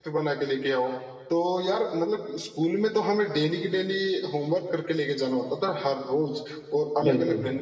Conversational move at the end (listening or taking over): listening